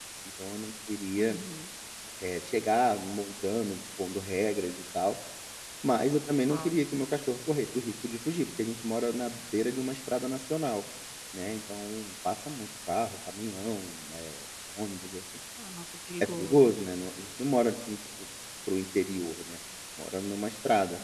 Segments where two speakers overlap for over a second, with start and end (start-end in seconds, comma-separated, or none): none